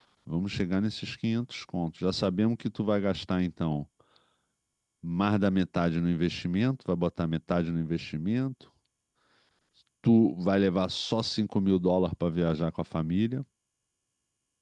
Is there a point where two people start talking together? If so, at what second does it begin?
none

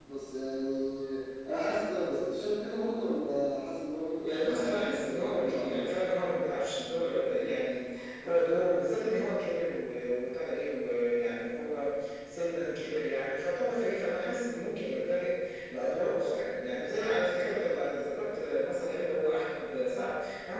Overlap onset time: 4.2 s

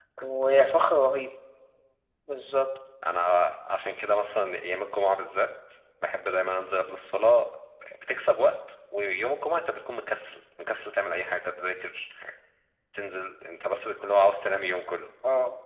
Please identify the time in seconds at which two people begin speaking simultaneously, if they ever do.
none

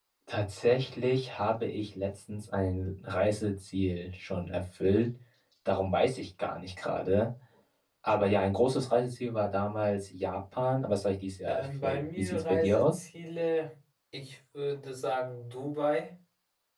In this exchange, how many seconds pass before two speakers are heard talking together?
11.5 s

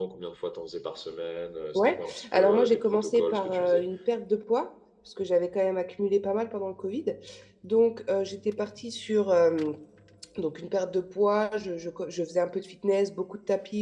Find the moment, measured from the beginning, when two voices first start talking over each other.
1.7 s

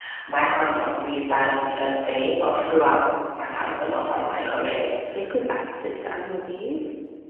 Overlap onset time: none

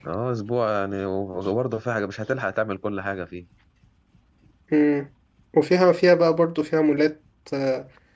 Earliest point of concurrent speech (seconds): none

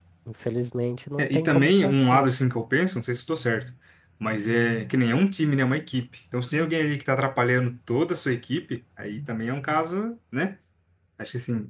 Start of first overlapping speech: 1.2 s

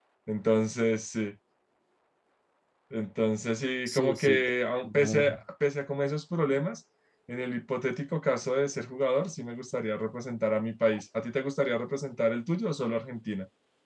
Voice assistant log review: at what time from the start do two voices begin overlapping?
3.9 s

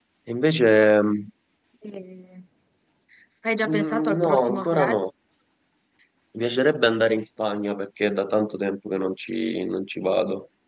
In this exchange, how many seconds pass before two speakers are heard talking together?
3.7 s

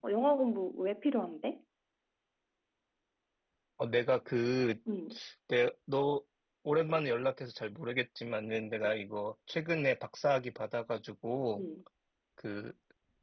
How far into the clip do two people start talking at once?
none

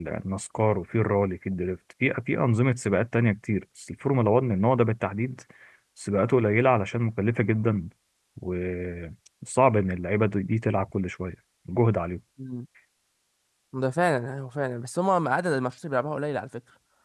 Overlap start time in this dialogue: none

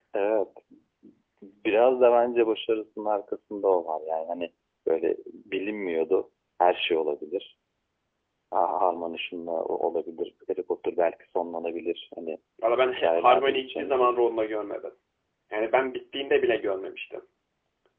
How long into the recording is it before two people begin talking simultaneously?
12.9 s

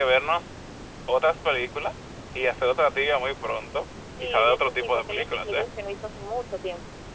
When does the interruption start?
4.2 s

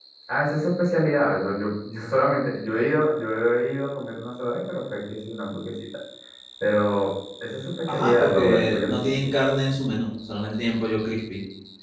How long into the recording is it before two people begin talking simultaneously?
7.9 s

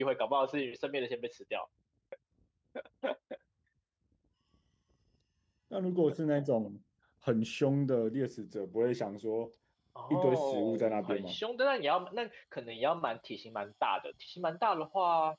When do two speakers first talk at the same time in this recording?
10.1 s

